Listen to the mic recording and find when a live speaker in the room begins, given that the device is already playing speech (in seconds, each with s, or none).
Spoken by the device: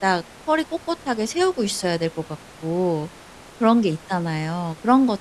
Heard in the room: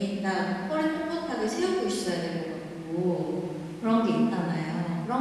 none